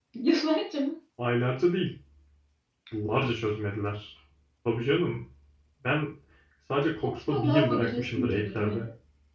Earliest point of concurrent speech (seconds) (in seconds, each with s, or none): 7.0 s